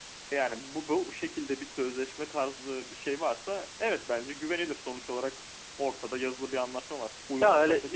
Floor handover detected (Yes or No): Yes